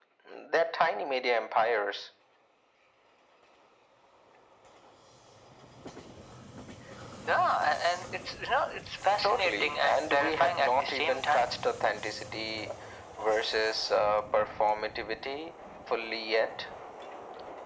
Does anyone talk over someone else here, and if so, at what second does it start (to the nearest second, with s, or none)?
9 s